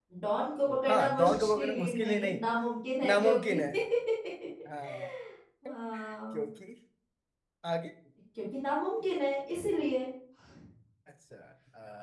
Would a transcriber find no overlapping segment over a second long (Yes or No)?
No